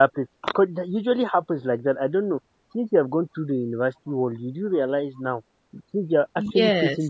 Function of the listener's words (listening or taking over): listening